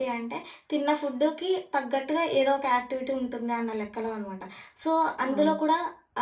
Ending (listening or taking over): listening